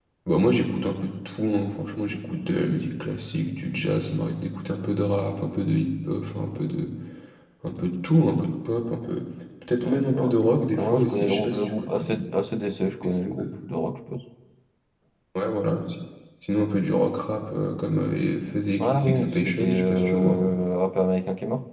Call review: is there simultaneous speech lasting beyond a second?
Yes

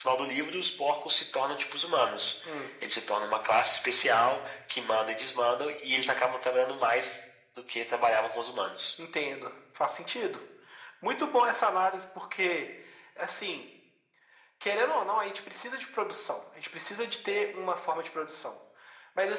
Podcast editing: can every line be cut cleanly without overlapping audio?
Yes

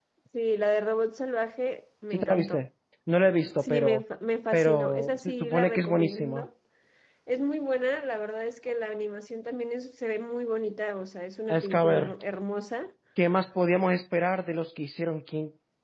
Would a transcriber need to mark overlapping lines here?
Yes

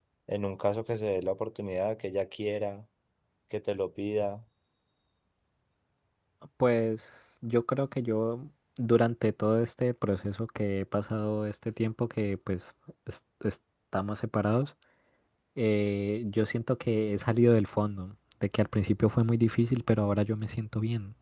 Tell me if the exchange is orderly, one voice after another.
Yes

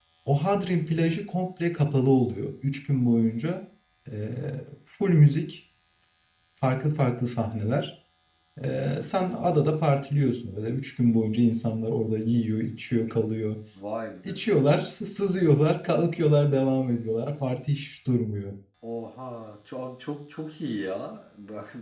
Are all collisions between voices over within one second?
Yes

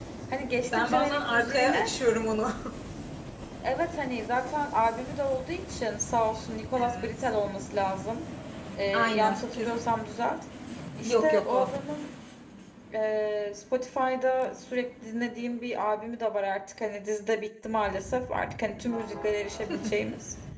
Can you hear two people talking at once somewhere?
Yes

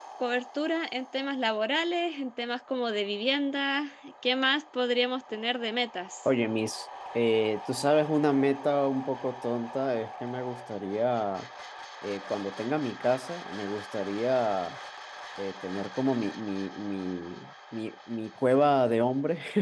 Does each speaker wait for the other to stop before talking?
Yes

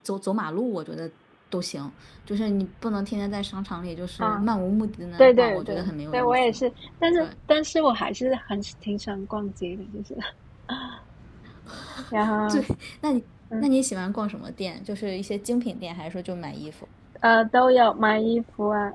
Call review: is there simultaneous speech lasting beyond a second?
Yes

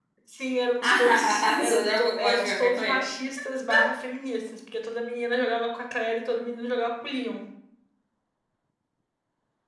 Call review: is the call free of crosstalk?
No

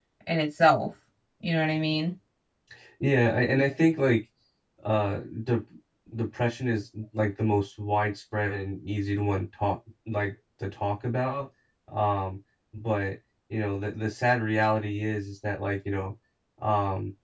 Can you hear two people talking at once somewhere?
No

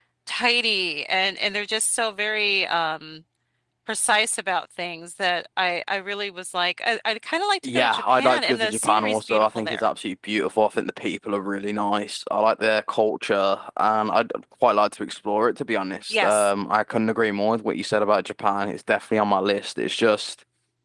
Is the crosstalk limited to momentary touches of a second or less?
No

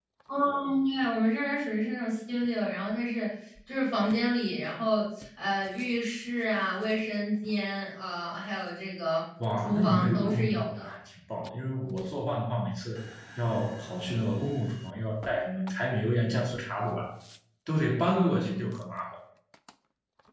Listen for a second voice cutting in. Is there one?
Yes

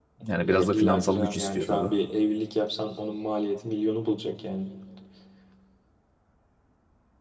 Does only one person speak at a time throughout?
No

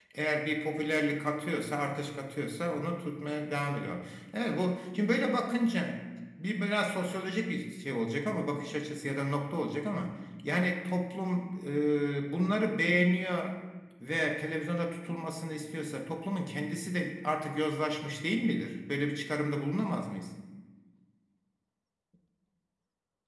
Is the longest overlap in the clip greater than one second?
No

